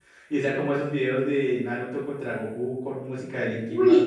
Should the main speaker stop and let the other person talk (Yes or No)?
Yes